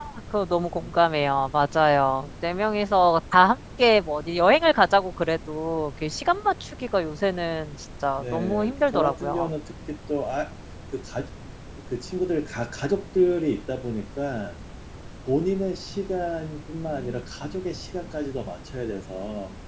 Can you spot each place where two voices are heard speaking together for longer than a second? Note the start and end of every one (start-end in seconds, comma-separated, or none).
8.2-9.5